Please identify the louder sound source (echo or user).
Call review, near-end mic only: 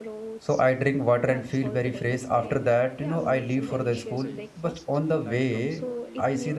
user